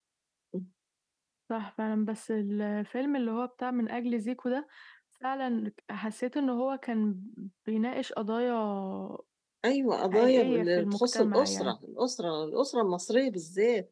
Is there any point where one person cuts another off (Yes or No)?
Yes